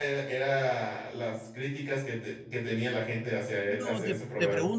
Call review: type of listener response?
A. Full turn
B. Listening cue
A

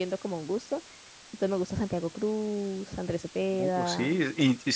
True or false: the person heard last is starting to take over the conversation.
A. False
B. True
B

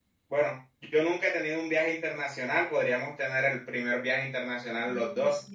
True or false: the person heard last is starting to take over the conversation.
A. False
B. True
B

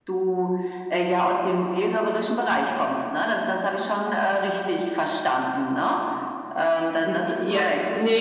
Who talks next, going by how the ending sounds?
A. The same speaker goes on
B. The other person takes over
B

